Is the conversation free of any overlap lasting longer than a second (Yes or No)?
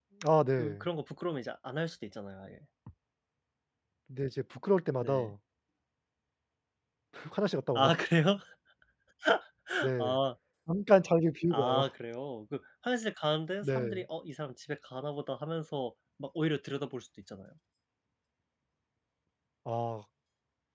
Yes